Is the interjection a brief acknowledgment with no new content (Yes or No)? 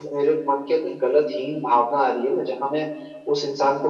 Yes